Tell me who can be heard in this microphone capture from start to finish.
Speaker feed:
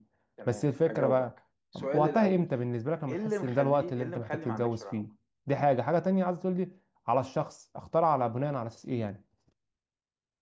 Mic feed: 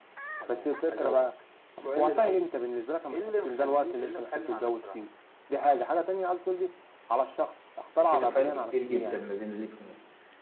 both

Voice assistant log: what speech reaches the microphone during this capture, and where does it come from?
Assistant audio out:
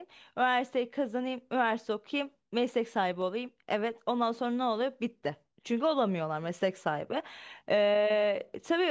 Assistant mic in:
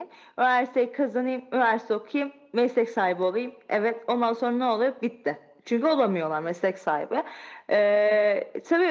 echo only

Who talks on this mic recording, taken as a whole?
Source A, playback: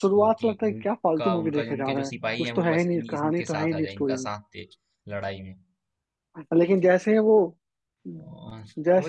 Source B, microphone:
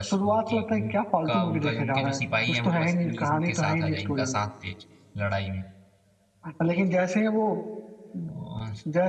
echo only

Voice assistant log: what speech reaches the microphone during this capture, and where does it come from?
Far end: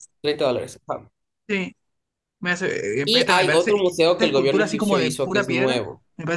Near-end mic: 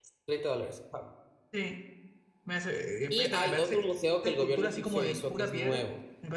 echo only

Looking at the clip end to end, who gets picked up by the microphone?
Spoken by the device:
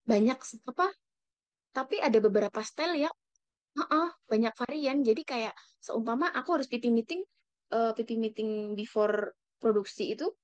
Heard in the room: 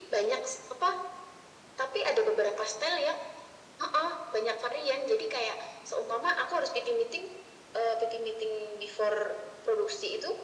echo only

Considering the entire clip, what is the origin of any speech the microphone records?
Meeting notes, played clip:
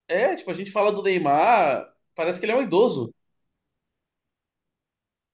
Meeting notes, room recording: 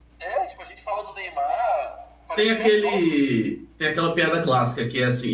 both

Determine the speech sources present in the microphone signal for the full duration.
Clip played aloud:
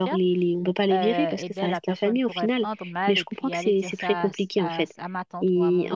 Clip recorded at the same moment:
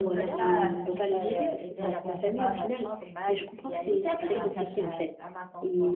both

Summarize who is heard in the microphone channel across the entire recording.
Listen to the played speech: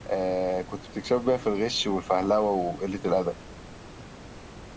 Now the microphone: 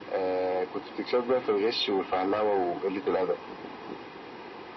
echo only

